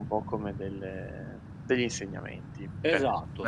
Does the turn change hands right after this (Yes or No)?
Yes